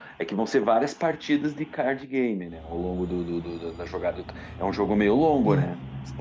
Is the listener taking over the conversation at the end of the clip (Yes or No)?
No